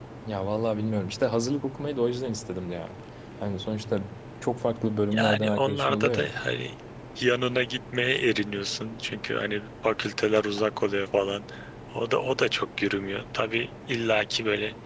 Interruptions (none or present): present